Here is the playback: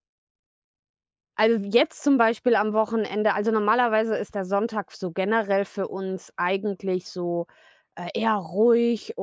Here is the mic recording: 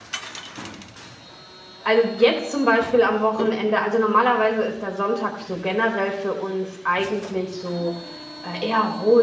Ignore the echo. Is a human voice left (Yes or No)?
No